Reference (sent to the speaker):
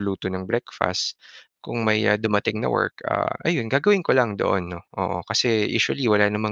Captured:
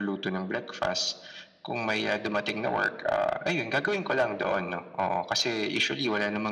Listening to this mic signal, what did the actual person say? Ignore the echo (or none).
none